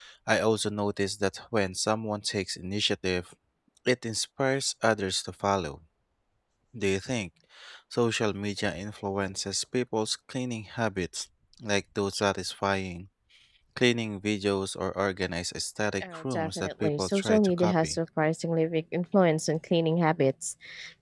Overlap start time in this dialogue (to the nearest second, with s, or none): 16 s